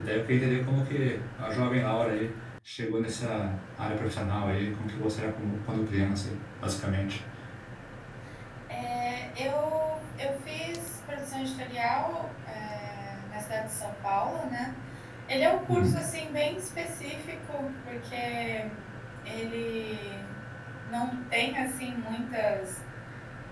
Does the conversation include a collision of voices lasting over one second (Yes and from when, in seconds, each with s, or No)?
No